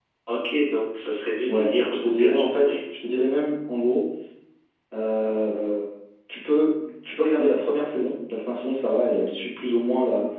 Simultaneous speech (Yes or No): Yes